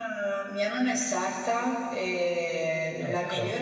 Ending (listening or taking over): listening